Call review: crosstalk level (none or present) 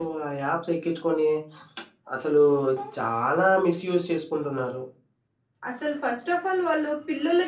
none